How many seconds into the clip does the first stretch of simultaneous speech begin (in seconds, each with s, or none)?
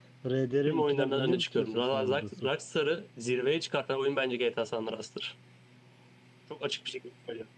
0.7 s